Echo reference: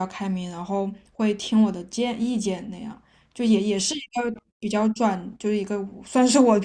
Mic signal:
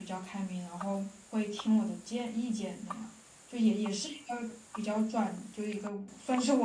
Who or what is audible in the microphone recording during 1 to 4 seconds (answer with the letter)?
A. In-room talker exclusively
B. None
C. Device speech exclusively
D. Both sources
C